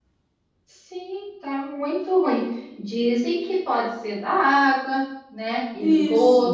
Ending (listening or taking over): listening